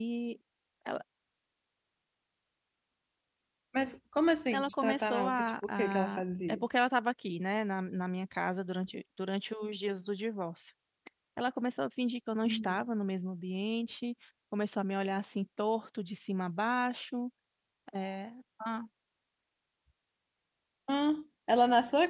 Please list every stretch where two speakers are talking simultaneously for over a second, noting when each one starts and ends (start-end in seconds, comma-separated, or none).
4.5-6.6